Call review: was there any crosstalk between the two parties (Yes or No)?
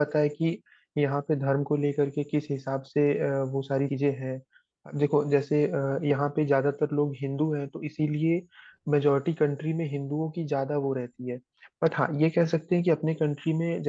No